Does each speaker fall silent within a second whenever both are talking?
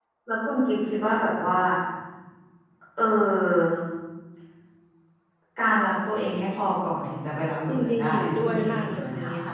No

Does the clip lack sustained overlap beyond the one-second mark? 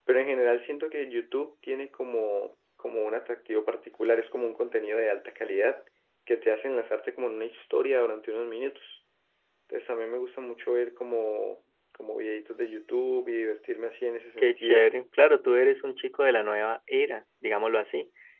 Yes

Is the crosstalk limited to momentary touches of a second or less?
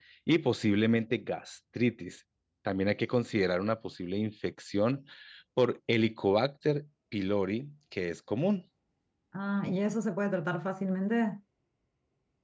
Yes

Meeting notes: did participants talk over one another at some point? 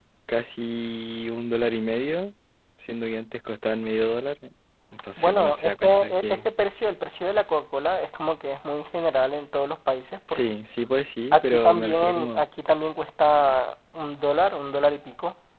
Yes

